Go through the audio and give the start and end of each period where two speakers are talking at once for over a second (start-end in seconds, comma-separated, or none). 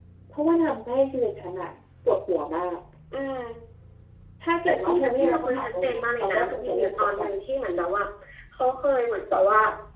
4.7-7.3